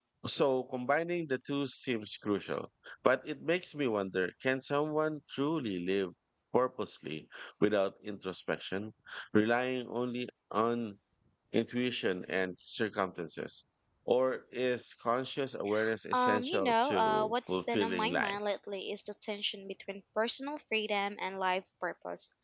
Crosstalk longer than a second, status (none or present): present